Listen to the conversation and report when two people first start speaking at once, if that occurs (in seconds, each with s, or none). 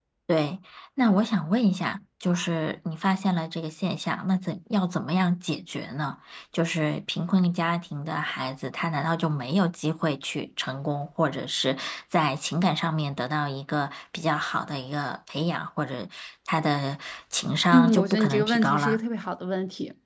17.7 s